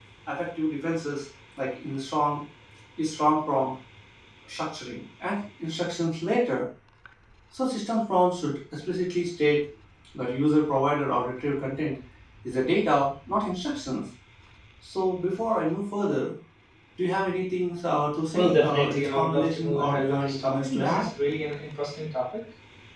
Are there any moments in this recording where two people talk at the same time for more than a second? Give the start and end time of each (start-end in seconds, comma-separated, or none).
18.3-21.0